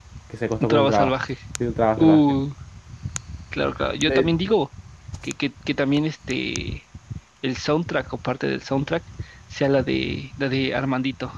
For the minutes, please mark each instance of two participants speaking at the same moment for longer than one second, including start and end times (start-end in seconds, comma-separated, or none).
none